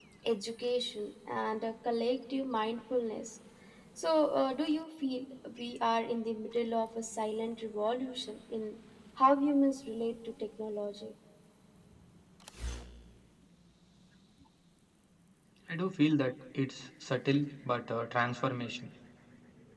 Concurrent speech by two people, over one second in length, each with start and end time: none

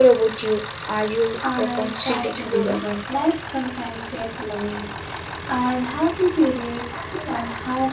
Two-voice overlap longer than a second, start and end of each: 1.6-2.8

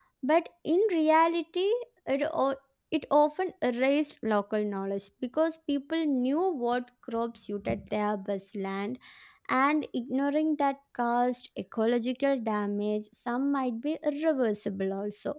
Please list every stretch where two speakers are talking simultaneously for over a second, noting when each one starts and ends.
none

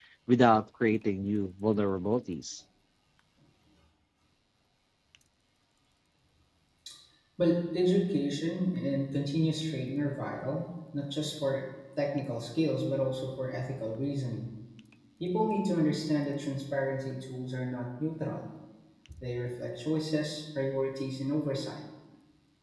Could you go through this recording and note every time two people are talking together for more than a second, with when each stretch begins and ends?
none

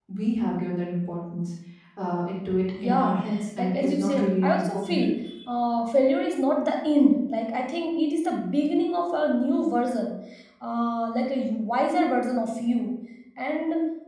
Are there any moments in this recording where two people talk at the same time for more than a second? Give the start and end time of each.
3.6-5.0

